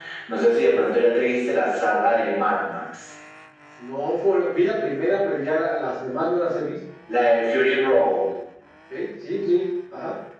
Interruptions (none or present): none